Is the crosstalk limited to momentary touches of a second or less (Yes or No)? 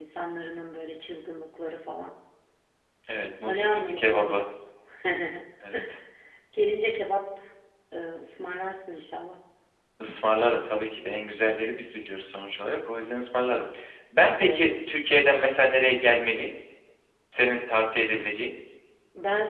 No